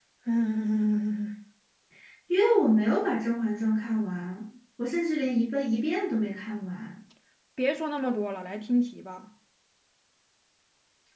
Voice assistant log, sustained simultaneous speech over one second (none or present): none